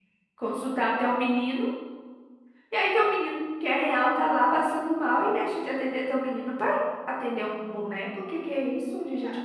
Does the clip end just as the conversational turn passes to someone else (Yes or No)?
Yes